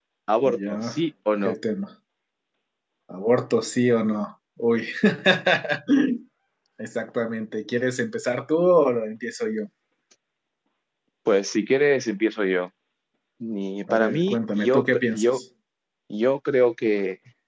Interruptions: present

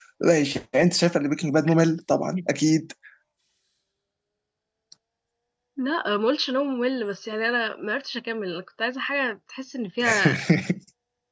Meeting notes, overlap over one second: none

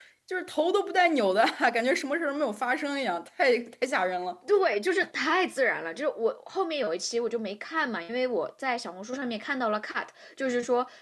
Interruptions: none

